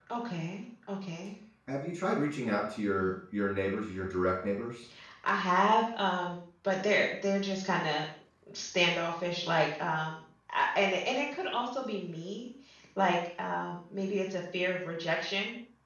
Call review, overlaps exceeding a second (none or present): none